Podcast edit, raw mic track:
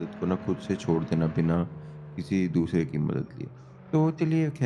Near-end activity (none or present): present